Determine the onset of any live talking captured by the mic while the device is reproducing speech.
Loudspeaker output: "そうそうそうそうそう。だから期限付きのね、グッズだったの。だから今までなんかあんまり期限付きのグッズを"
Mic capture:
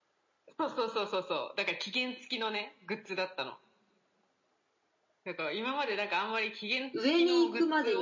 6.9 s

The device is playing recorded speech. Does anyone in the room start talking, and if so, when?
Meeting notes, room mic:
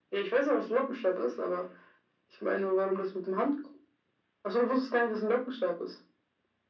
none

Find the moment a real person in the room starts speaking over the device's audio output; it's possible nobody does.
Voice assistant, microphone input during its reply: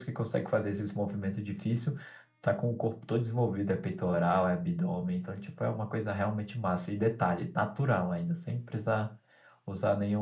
none

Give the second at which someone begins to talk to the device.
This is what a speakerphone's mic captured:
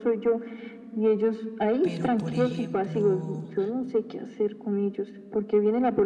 1.8 s

